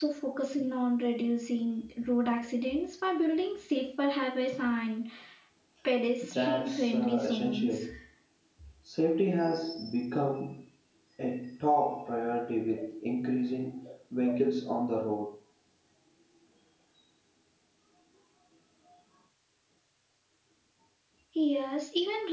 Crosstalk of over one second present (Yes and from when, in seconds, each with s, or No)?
Yes, from 6.4 s